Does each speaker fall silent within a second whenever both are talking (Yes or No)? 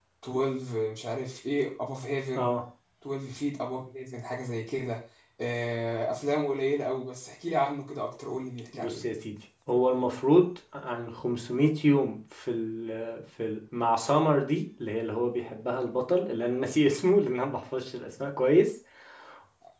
Yes